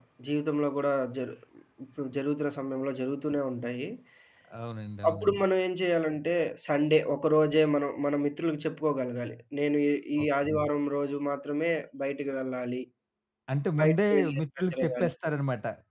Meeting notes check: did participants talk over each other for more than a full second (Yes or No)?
Yes